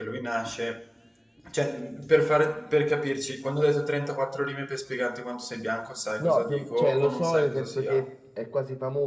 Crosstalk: present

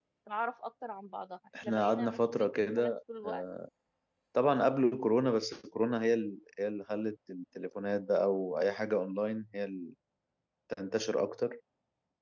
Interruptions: present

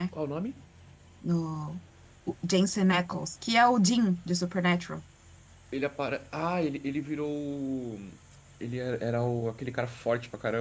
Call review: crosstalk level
none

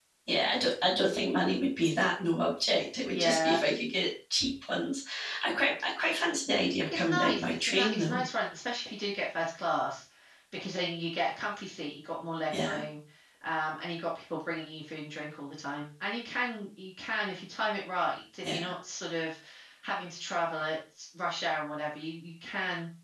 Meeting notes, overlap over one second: present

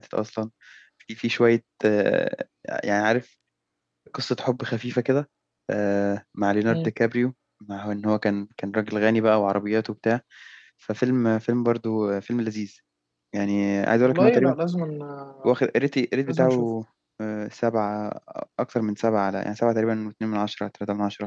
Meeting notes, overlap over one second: none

